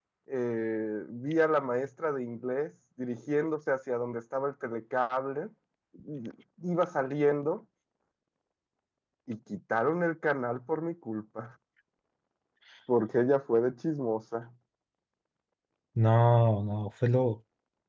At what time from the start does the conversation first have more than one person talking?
none

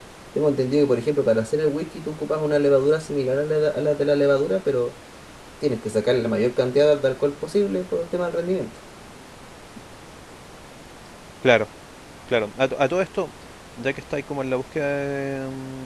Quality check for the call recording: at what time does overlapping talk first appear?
none

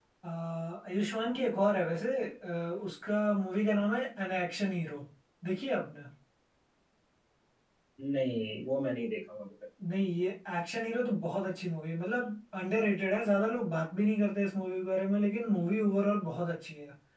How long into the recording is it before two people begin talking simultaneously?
none

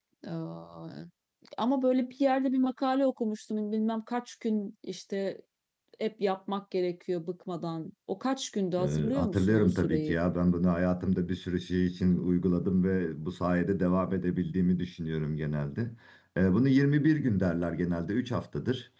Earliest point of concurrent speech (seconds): 8.8 s

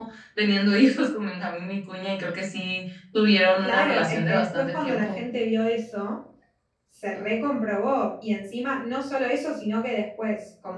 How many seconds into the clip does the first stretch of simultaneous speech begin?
3.6 s

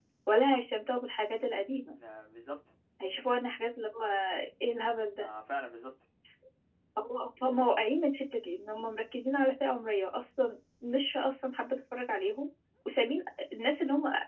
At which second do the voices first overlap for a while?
none

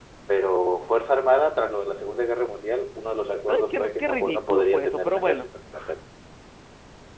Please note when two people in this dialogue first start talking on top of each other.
3.5 s

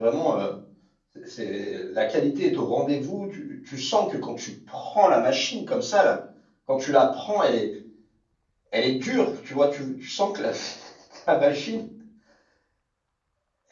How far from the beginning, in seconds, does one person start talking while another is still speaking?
none

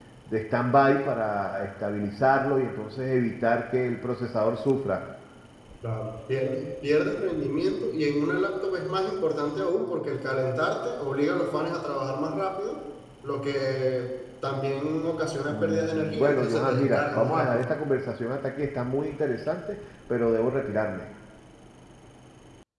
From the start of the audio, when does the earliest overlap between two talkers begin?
15.4 s

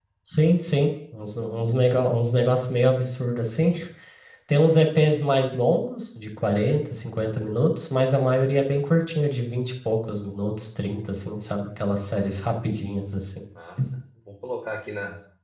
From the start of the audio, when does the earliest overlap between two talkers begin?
none

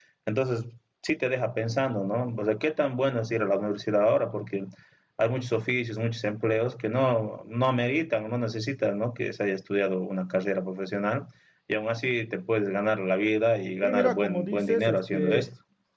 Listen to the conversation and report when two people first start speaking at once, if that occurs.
13.8 s

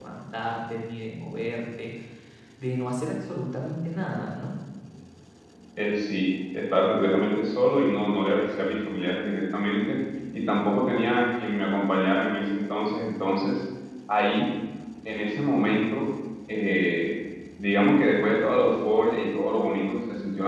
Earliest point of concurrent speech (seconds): none

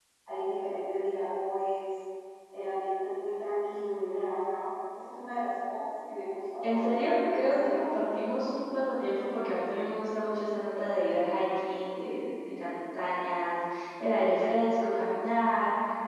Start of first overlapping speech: 6.6 s

